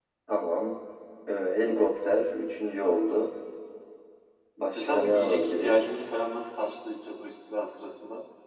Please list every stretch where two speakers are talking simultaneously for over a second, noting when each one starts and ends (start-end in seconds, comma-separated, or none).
4.8-6.0